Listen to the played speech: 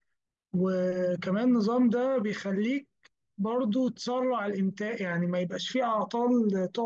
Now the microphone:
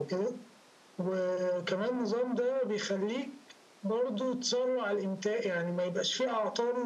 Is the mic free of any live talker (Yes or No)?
Yes